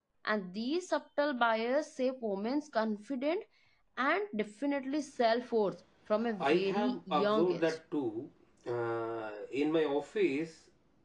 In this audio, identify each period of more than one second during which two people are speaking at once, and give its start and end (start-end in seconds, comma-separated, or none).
6.4-7.8